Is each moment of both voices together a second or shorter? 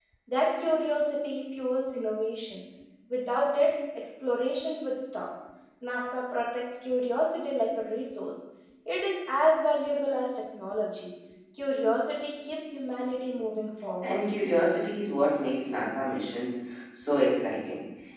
Yes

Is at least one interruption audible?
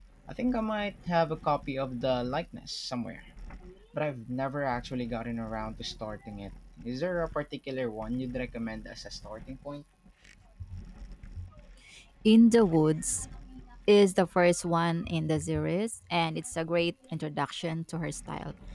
No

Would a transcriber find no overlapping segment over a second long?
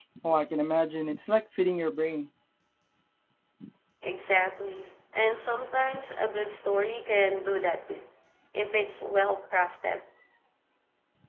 Yes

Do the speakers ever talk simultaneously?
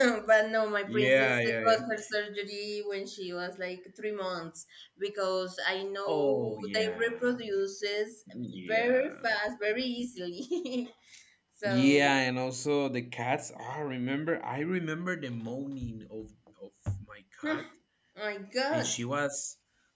Yes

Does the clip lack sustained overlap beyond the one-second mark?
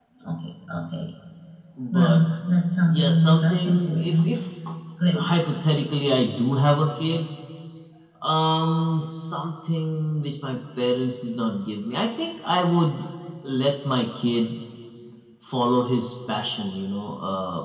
No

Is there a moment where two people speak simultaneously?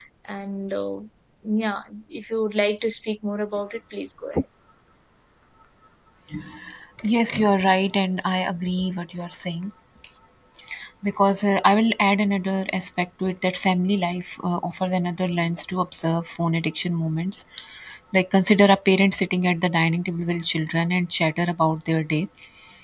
No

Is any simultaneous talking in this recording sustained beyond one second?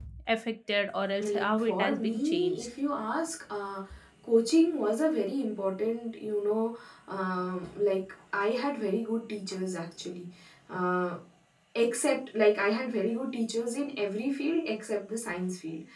Yes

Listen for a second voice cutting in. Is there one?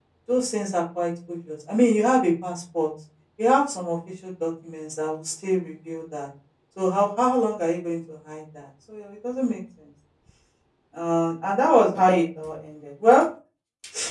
No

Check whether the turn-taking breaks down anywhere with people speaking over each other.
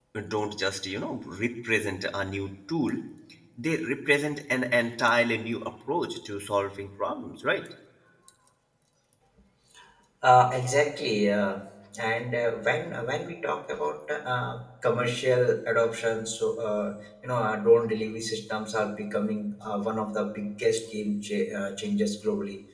No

